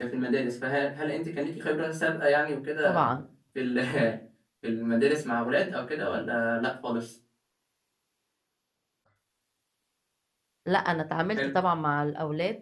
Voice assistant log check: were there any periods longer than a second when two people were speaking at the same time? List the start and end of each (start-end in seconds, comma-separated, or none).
none